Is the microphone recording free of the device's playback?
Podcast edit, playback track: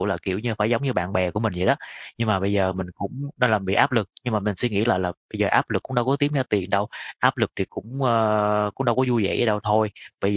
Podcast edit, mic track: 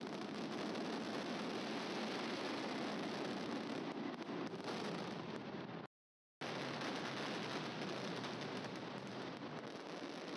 Yes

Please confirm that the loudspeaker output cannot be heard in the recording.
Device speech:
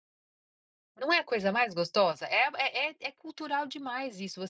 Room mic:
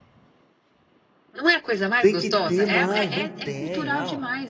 No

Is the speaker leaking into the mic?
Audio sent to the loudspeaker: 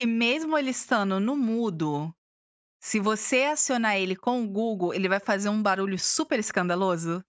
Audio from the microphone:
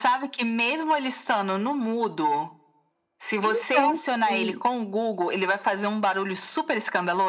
Yes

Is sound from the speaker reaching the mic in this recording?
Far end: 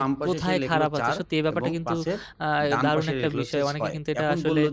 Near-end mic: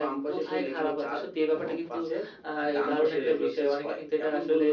Yes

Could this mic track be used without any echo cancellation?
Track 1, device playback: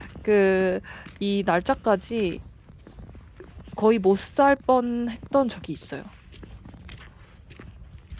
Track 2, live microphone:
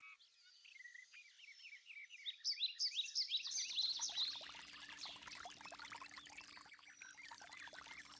Yes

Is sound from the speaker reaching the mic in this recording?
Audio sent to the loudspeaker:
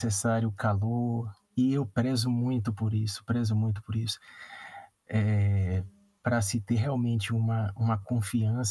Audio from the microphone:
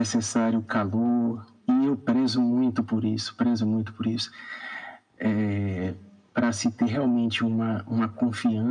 Yes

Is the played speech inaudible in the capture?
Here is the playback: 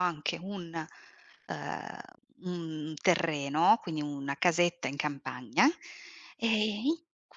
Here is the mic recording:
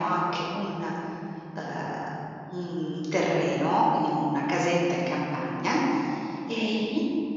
No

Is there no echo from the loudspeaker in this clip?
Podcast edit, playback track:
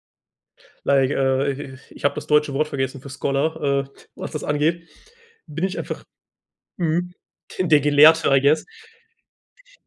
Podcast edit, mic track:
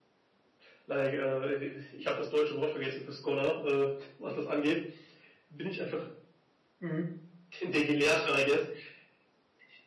No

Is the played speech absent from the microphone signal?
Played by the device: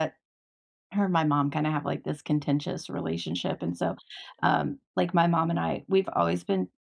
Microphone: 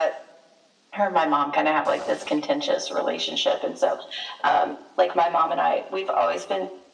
No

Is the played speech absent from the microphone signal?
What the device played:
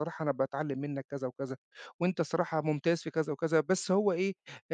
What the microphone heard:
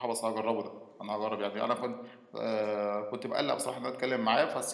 Yes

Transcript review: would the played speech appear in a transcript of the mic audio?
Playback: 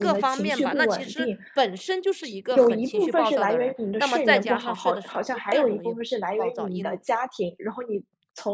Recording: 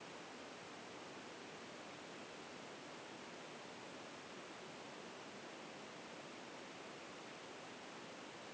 No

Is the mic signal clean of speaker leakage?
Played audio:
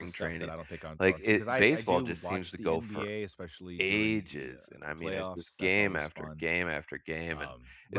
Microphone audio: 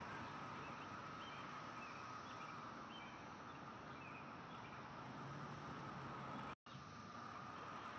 Yes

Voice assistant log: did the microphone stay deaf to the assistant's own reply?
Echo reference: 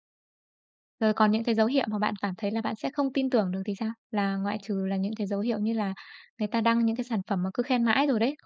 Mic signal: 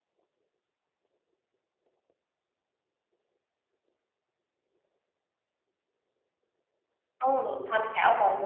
Yes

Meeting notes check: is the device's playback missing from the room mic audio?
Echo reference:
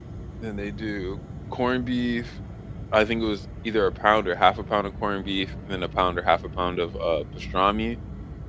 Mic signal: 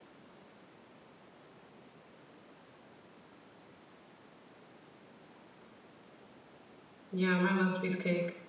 Yes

